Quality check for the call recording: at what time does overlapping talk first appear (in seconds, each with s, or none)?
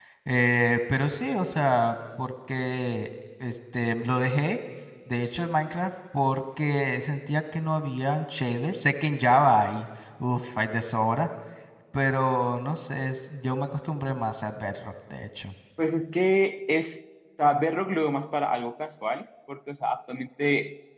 none